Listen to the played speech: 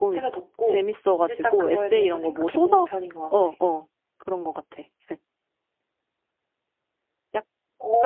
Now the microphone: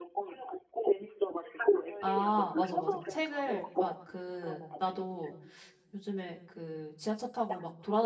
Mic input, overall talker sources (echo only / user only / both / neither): both